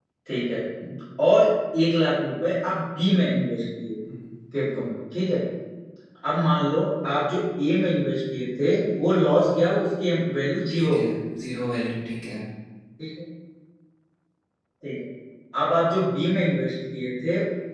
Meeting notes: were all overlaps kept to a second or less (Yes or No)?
Yes